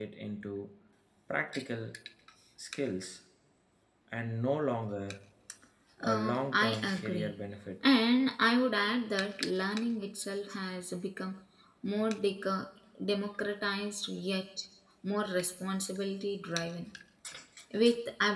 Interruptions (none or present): present